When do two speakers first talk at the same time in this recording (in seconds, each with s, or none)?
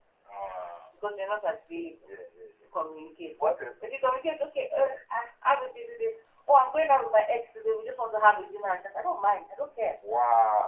none